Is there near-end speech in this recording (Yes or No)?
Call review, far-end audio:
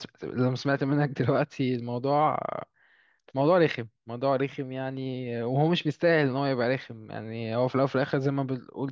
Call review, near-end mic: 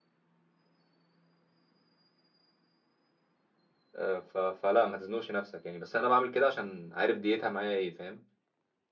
Yes